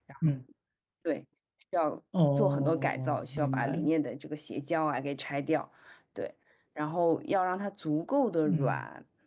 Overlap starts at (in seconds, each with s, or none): 2.4 s